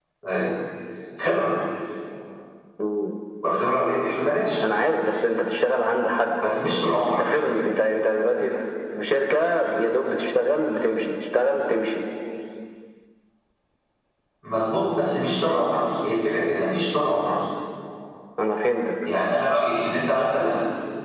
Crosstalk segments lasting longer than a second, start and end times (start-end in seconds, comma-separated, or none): none